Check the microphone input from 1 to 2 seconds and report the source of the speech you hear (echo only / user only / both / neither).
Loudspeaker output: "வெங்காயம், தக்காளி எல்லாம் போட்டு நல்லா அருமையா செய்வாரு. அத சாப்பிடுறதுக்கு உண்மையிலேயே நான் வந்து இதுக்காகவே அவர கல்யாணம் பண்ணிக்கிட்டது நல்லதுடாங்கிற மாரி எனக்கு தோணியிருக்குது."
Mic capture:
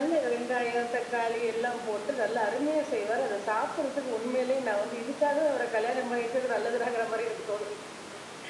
echo only